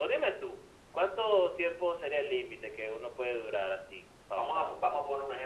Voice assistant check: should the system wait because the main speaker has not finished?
No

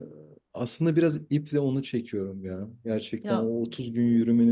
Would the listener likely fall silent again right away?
Yes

